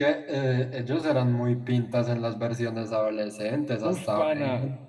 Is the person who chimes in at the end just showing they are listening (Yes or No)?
No